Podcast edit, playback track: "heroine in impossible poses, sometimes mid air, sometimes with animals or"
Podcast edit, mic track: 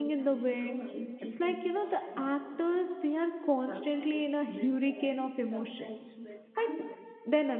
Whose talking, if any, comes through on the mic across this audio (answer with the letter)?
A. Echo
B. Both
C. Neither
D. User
B